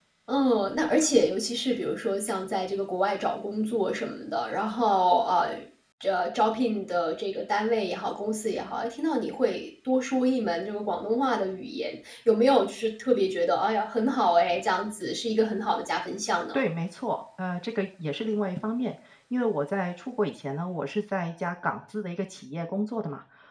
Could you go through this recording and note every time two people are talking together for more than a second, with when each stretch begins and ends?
none

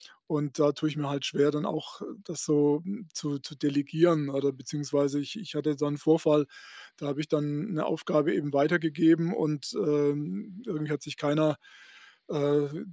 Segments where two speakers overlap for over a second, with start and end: none

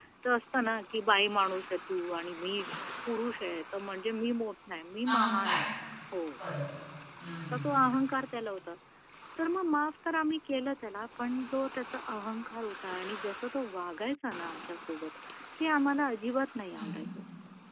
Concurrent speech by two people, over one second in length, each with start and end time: none

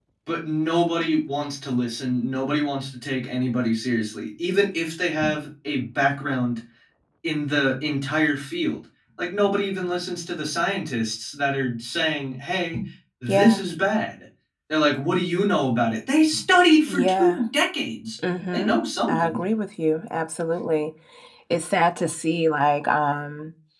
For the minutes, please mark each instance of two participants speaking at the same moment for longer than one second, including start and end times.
none

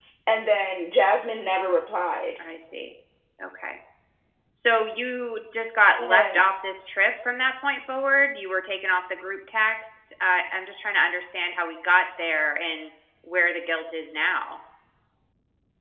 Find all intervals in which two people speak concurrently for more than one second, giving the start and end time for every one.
none

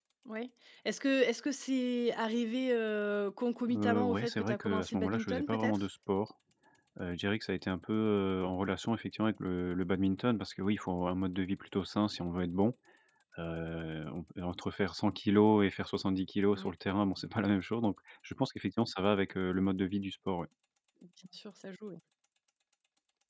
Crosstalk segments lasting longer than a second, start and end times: 3.7-5.8

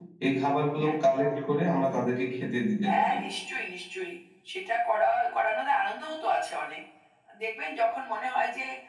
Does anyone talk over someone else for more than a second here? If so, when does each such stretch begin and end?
none

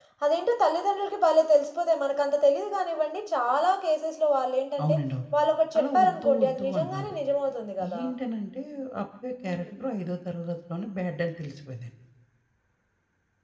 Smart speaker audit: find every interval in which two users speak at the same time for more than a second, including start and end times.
5.8-7.1

